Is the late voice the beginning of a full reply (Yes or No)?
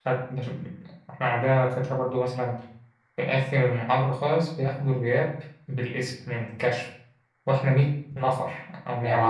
Yes